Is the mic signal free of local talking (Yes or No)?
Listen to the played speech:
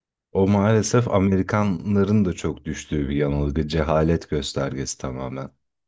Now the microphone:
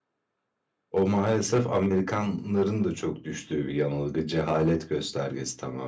Yes